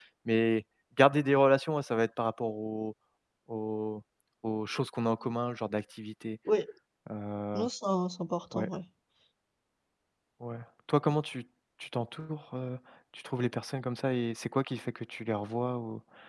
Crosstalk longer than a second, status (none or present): none